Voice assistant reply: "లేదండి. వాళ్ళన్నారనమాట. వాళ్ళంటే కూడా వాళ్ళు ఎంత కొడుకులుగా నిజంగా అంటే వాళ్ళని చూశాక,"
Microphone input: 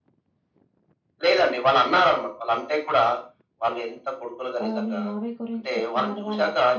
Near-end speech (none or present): present